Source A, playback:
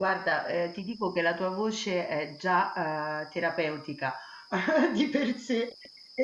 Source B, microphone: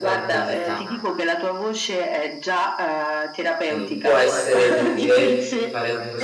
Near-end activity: present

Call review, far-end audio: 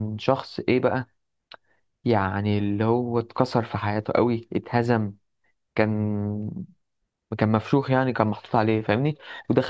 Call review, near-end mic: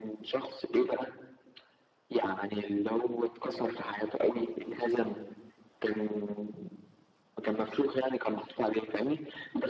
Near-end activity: none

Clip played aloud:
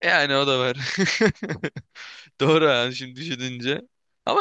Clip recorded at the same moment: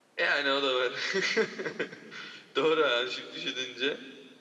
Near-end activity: none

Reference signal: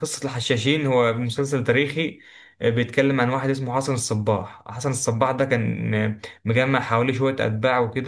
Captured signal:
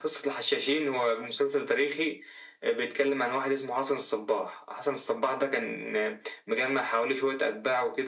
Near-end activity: none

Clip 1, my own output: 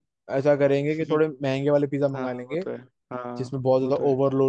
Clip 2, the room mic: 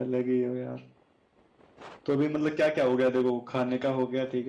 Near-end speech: present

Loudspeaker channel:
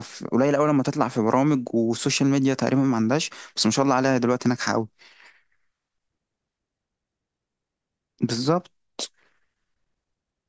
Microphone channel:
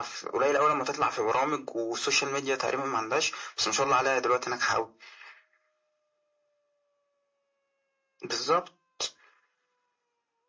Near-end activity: none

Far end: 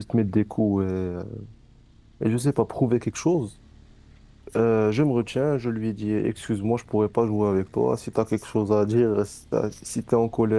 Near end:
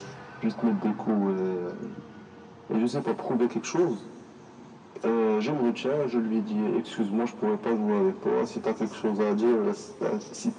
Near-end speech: none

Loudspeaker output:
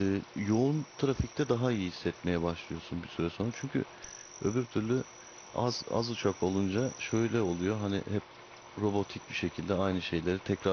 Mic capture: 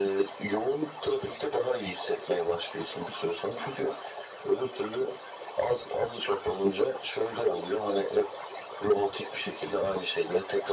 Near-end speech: none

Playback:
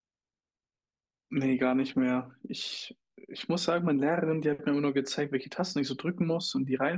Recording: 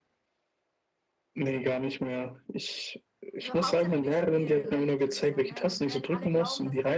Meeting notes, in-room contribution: present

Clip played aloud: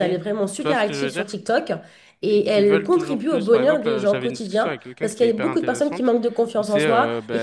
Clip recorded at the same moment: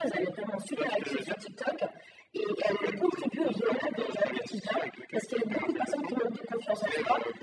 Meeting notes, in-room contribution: none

